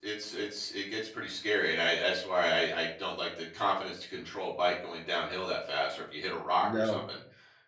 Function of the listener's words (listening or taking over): listening